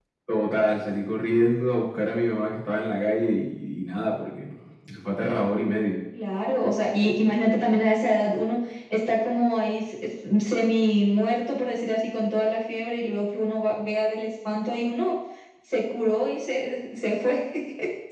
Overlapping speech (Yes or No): No